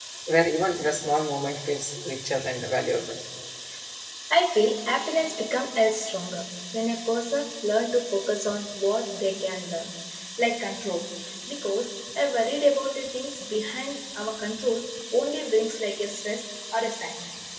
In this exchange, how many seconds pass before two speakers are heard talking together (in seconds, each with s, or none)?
none